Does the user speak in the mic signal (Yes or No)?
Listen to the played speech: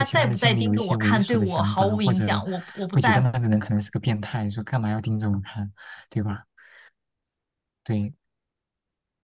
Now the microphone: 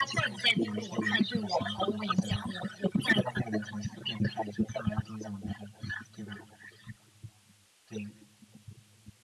No